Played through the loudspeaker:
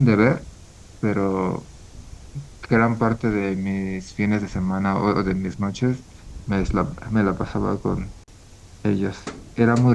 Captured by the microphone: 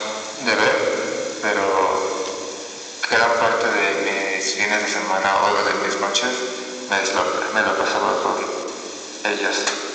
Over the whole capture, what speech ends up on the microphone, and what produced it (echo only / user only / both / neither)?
echo only